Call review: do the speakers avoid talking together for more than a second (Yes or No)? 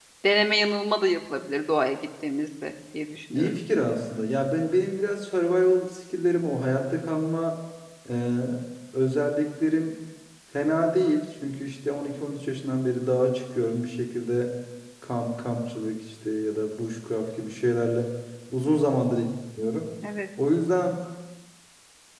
Yes